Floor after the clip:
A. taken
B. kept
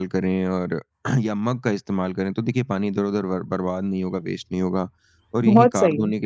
B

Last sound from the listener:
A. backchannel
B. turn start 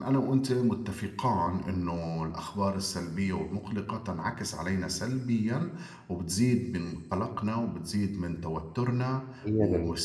A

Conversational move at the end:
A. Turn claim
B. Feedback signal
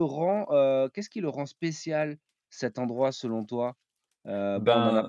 B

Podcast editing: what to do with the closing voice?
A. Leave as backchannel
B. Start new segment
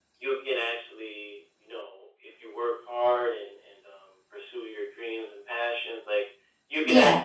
A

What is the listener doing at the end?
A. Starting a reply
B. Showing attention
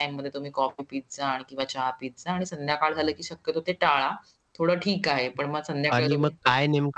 A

